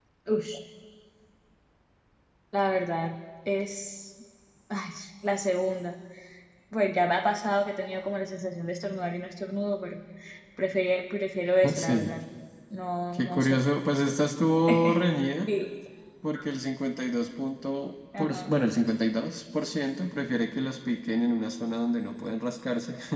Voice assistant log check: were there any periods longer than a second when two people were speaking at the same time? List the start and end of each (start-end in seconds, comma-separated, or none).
none